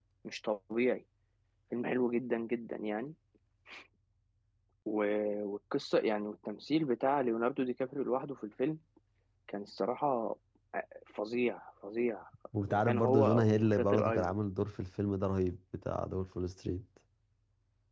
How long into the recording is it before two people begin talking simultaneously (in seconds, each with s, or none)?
12.7 s